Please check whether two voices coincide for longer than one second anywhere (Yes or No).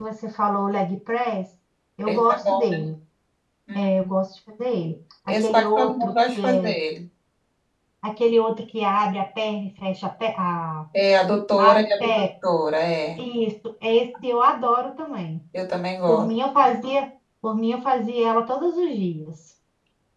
Yes